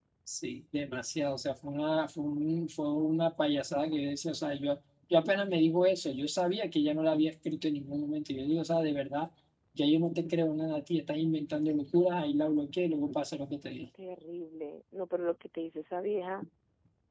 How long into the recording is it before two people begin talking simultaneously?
none

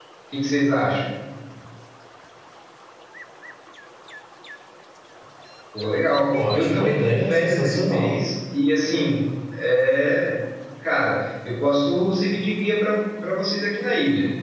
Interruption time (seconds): 6.3 s

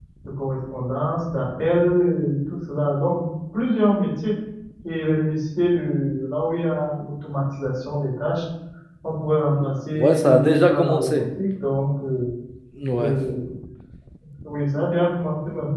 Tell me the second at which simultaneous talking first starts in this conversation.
10.0 s

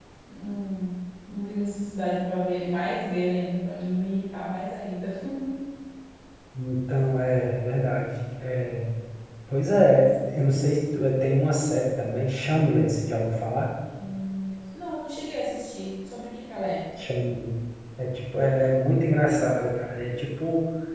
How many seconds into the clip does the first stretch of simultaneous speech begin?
none

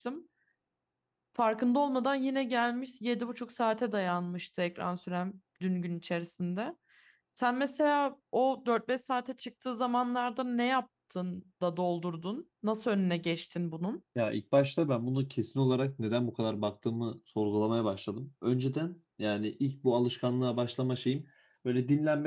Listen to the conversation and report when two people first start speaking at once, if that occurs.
none

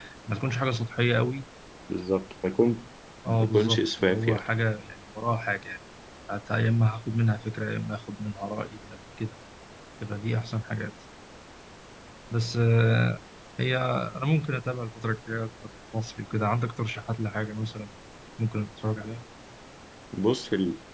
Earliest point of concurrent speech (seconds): 3.2 s

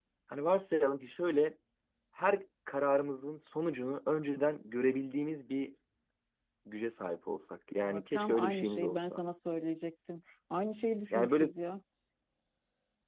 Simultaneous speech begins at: 7.8 s

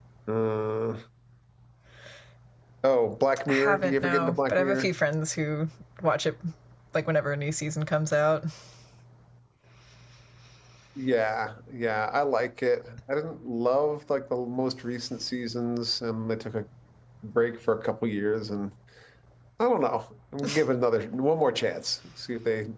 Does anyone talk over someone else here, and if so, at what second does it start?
3.5 s

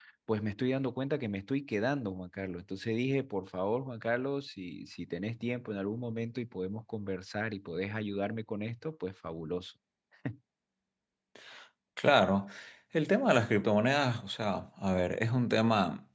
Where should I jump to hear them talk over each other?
none

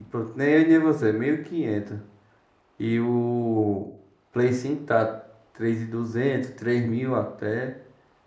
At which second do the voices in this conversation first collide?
none

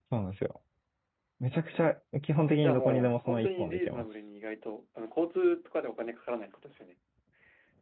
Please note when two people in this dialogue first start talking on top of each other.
2.6 s

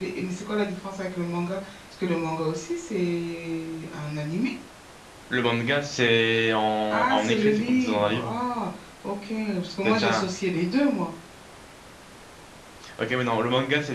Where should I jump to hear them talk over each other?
6.9 s

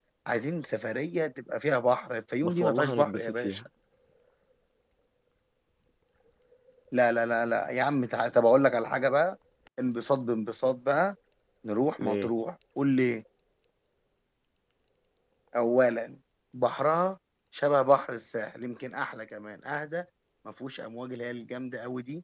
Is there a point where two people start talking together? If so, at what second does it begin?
2.4 s

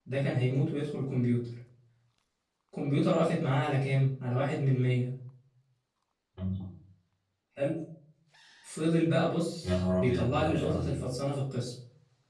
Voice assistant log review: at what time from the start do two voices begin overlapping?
9.6 s

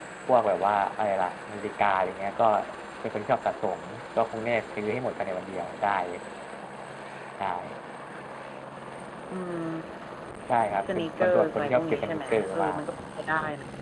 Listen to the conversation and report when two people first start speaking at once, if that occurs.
10.9 s

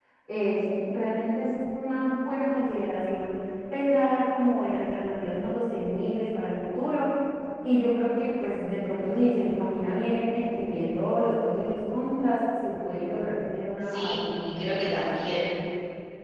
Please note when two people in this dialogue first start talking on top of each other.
13.9 s

